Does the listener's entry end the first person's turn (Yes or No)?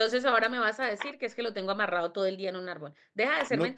No